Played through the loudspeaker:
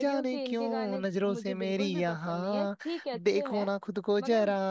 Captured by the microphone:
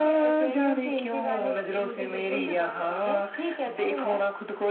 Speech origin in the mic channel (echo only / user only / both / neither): both